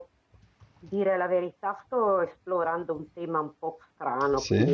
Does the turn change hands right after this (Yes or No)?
No